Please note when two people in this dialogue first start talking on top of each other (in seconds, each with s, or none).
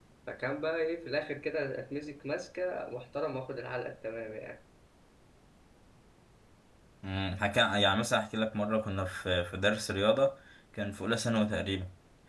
none